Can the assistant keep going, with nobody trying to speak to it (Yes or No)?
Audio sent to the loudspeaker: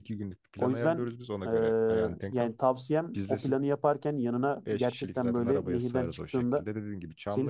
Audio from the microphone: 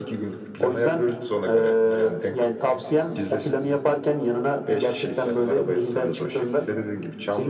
Yes